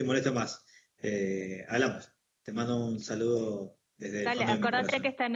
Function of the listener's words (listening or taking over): taking over